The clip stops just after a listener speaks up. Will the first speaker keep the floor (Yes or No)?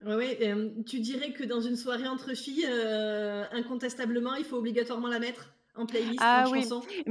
No